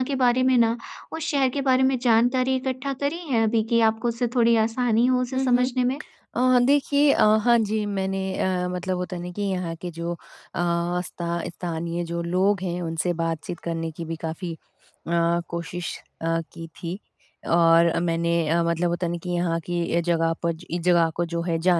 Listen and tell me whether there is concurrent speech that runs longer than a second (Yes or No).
No